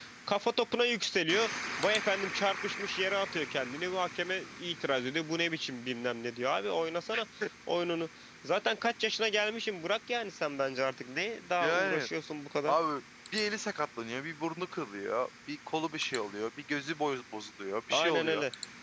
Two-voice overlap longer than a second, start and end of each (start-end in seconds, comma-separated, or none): none